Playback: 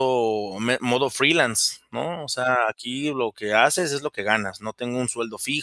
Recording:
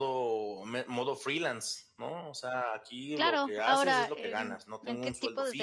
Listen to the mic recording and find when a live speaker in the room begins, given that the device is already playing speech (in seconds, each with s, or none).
3.2 s